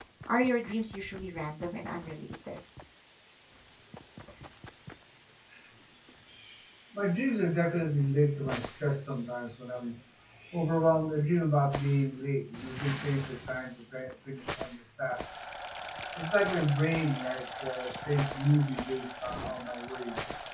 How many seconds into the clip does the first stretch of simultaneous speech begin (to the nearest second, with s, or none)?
none